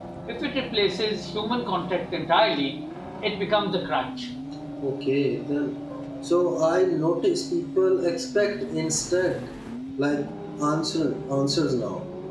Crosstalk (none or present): none